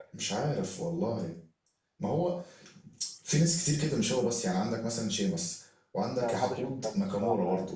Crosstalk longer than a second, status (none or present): present